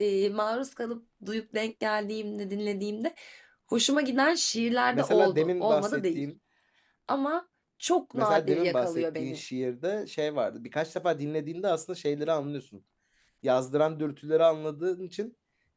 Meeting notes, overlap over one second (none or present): present